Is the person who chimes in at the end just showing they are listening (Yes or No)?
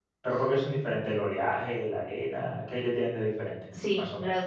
No